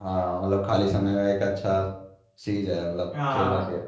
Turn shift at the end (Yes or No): Yes